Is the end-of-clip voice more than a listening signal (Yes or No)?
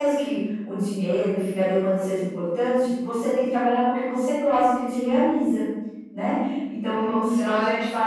Yes